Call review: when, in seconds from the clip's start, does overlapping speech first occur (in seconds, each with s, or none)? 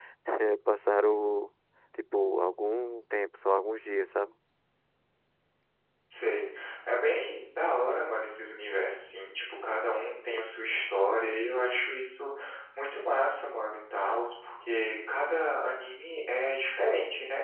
none